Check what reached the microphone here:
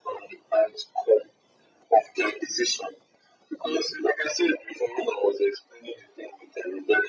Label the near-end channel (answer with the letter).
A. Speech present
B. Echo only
B